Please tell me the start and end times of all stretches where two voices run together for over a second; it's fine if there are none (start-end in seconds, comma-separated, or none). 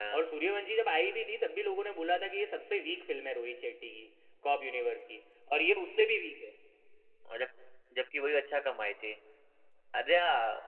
none